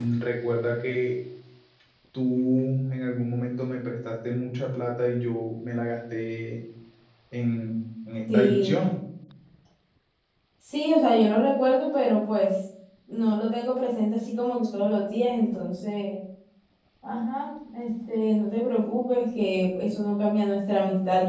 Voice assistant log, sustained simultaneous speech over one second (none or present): none